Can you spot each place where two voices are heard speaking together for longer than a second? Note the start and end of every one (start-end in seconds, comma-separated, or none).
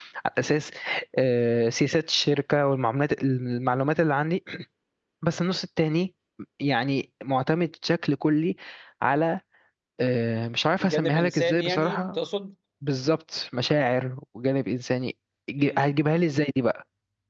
10.8-12.2